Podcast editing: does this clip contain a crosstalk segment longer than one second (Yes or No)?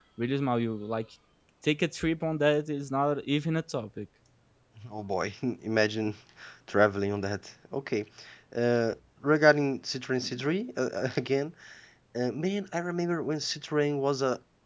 No